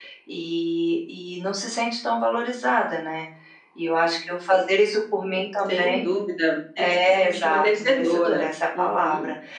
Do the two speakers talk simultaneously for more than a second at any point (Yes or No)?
Yes